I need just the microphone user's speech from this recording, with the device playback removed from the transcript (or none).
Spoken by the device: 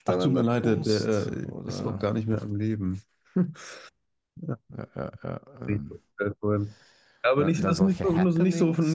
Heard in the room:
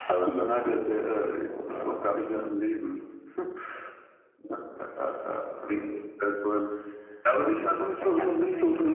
none